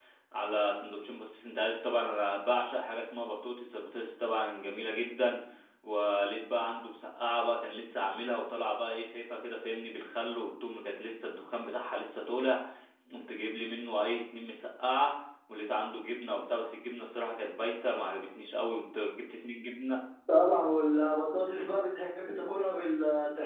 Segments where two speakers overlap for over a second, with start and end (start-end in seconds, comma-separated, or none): none